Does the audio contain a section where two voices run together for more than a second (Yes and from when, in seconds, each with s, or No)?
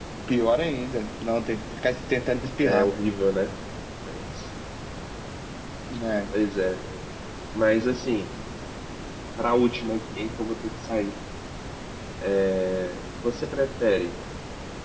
No